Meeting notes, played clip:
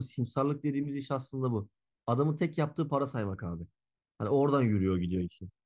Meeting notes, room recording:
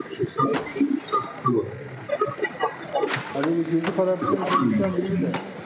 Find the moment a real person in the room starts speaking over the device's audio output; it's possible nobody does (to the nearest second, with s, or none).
3 s